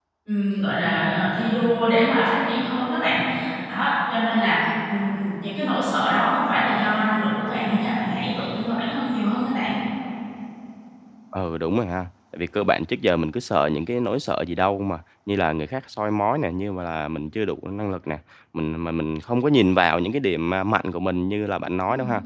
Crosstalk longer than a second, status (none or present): none